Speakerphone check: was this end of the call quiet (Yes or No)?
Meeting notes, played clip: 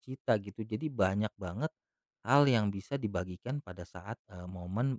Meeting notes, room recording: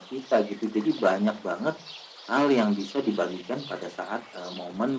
Yes